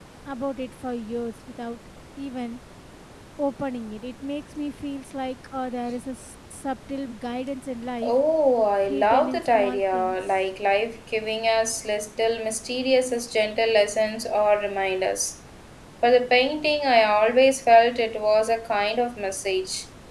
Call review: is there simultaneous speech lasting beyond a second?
Yes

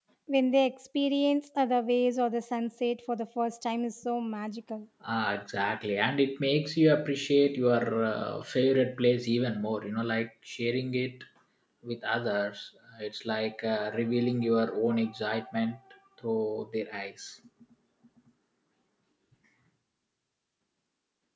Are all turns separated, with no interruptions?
Yes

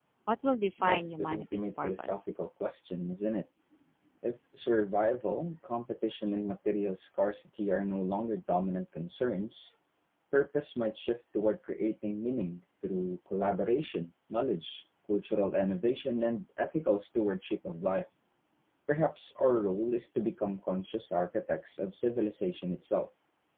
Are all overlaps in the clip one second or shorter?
No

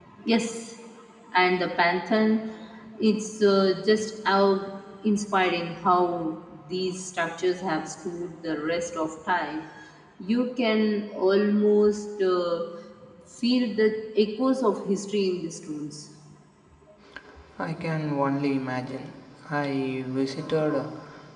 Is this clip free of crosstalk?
Yes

